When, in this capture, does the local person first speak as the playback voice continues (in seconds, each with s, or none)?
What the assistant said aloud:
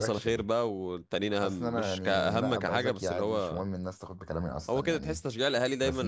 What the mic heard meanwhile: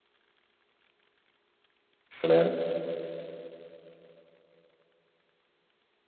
2.1 s